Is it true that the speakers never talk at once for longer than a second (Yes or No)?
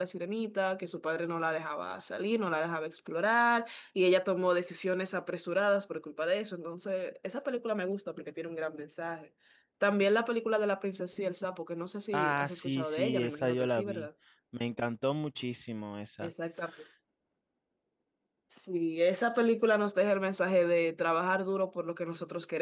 No